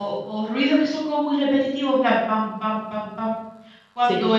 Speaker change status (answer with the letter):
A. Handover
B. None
B